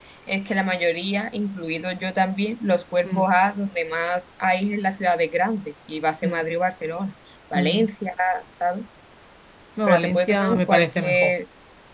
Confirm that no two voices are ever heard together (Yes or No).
No